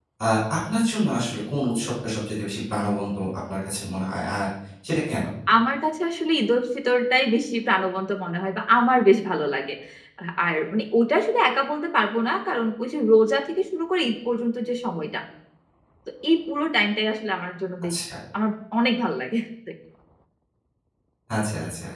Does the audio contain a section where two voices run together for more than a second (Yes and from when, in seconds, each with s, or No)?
No